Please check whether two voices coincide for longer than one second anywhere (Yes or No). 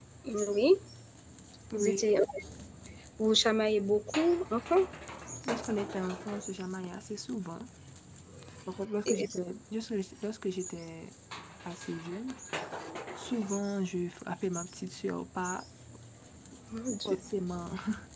No